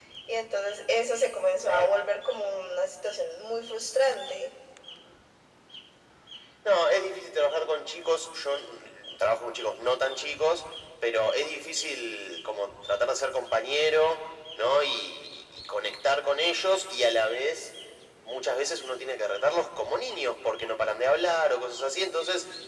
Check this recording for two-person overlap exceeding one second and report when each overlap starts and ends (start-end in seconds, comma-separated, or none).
none